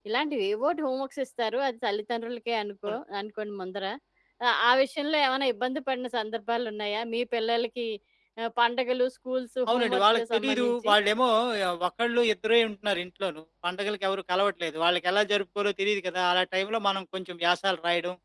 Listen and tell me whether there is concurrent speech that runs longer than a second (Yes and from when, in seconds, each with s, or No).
Yes, from 9.7 s